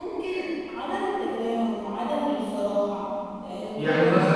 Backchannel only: No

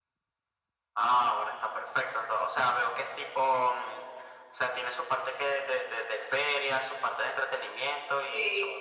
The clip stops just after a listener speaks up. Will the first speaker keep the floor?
No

